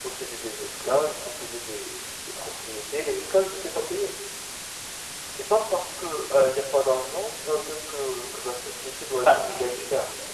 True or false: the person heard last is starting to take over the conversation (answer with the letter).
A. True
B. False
A